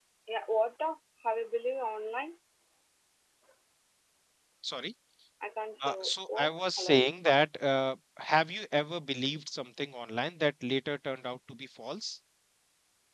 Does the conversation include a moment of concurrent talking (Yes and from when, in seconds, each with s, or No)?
Yes, from 5.8 s